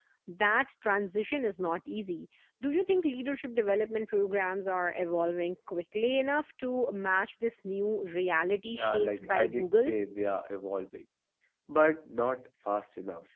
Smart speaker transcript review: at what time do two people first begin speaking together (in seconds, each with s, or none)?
8.7 s